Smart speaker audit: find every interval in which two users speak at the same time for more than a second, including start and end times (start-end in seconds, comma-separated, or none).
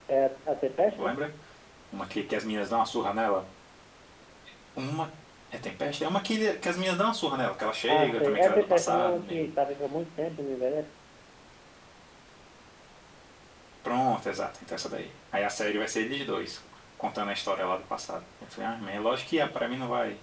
7.9-9.5